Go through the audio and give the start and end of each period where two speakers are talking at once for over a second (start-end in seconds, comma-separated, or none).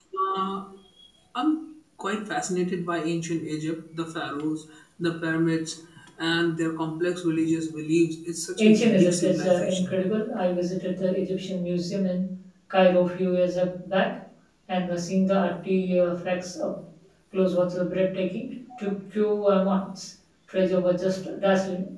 8.6-10.0